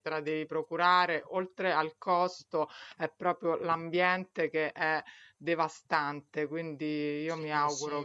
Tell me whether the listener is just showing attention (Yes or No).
No